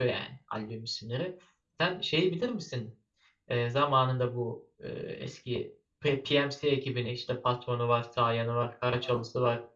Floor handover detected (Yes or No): Yes